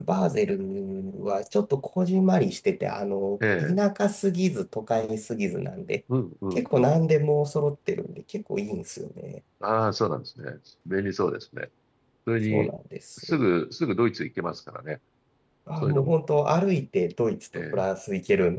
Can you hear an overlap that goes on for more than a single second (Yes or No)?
No